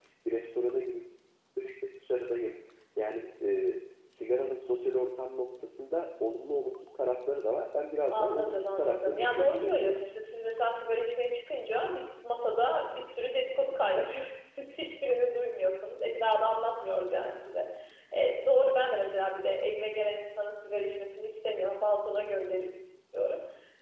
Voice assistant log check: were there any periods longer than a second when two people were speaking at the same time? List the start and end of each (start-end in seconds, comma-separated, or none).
8.1-10.0